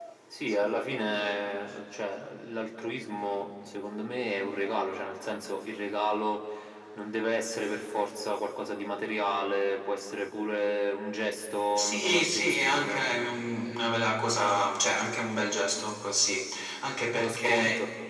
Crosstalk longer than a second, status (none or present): present